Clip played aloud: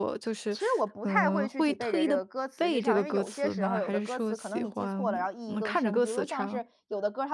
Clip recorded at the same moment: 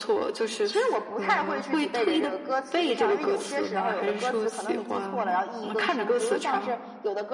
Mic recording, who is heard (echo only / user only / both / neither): echo only